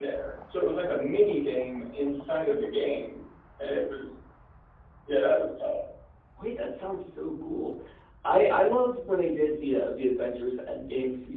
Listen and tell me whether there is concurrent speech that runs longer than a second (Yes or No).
No